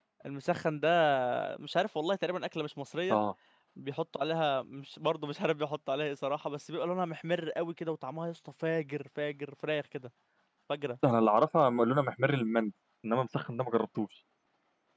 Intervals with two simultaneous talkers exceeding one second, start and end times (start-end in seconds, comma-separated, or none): none